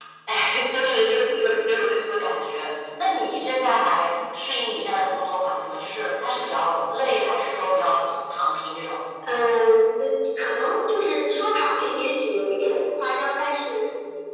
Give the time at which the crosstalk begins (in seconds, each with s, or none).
none